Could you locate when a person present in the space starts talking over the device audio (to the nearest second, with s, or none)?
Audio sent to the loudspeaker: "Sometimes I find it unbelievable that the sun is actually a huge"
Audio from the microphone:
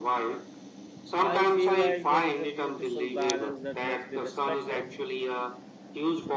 1 s